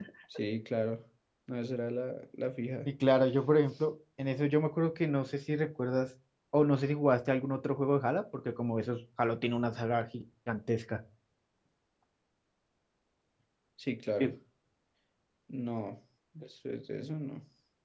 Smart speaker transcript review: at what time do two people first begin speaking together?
none

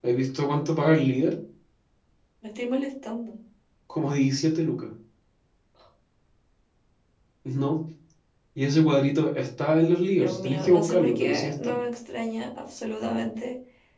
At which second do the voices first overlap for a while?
10.2 s

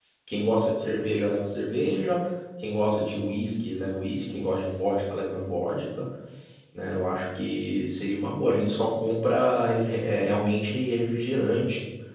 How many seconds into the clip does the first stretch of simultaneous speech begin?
none

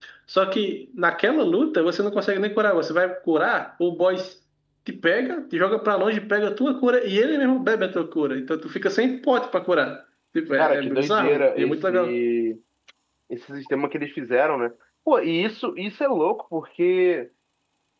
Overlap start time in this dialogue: 10.6 s

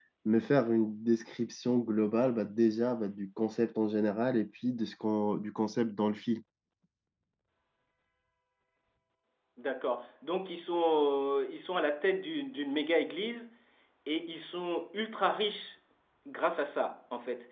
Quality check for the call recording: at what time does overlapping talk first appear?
none

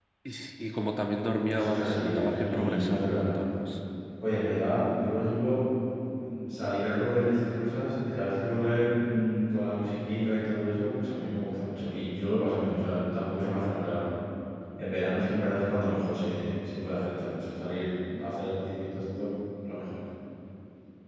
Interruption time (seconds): 1.5 s

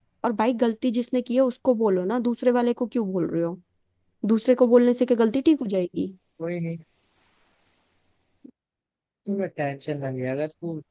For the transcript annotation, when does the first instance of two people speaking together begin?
none

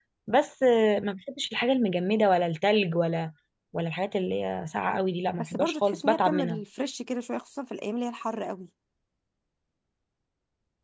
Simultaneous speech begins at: 5.4 s

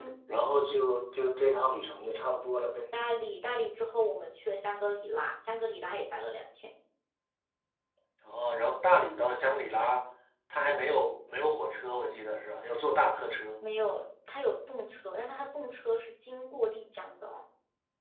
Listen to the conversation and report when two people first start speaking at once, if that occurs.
none

